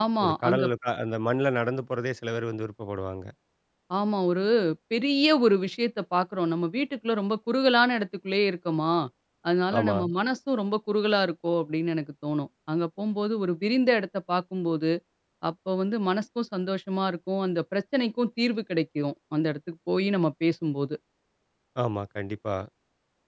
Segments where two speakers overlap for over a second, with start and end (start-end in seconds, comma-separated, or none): none